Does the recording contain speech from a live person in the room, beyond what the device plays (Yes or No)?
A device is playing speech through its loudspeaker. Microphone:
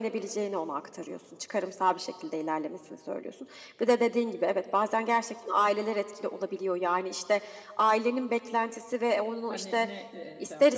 Yes